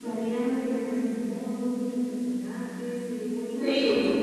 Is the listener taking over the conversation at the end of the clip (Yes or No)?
Yes